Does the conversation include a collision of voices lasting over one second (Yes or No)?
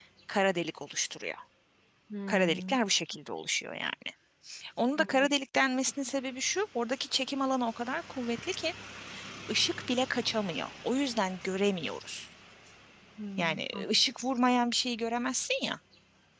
No